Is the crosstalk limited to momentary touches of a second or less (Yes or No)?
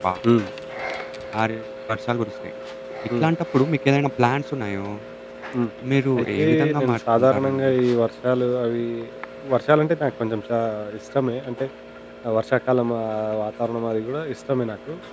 No